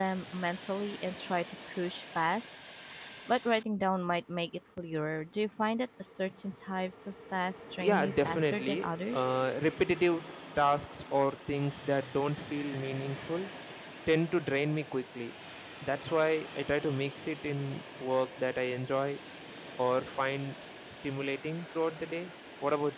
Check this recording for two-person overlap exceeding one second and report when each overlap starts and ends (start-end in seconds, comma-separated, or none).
7.8-9.3